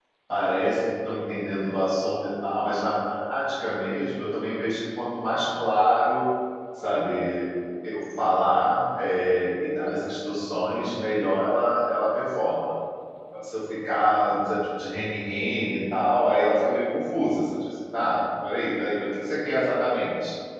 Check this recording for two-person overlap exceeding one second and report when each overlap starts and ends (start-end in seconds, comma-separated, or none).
none